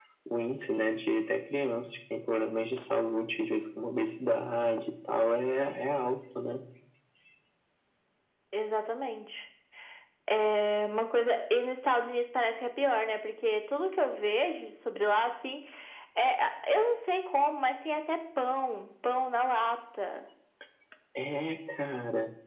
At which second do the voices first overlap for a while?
none

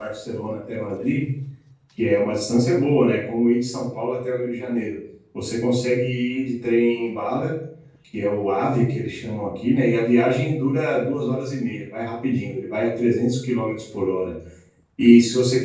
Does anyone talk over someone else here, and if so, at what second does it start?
none

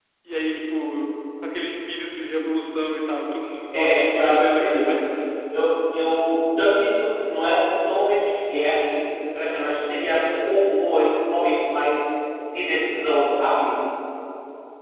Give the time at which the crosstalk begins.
3.7 s

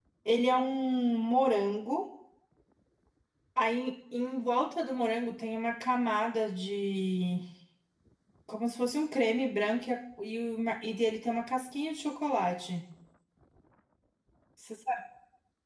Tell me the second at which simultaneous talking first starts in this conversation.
none

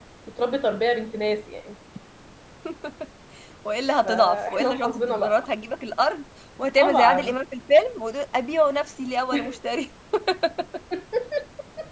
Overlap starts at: 4.0 s

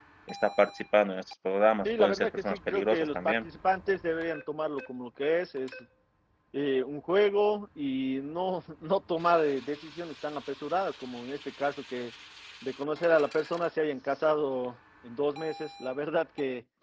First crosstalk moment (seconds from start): 1.8 s

